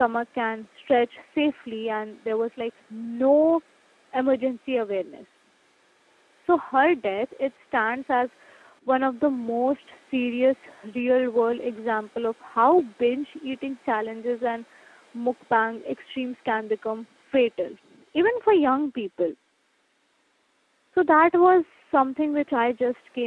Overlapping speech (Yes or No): No